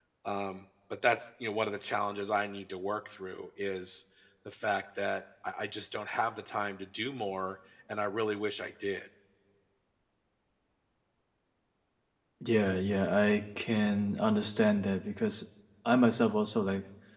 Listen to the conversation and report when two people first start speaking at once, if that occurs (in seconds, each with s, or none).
none